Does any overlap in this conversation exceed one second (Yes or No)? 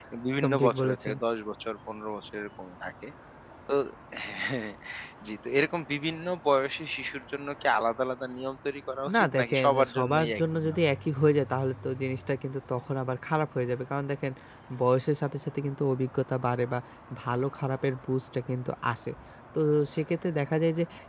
Yes